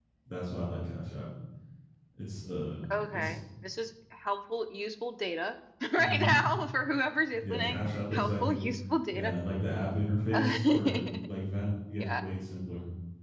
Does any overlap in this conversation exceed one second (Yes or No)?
Yes